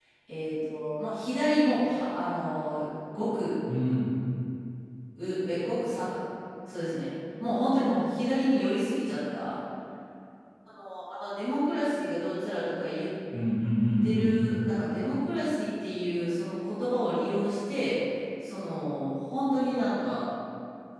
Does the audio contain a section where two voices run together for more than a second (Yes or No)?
No